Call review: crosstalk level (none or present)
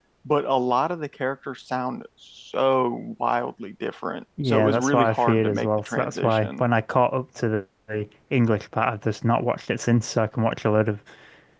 present